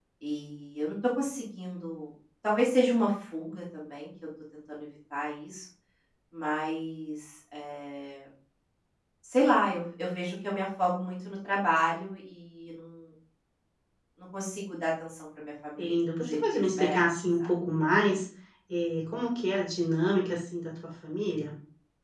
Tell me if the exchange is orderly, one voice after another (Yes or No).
No